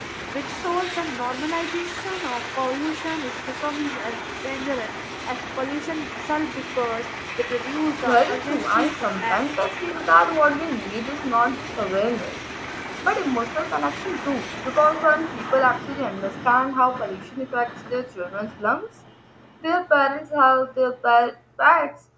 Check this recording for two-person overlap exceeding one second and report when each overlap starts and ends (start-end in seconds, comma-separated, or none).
8.1-9.5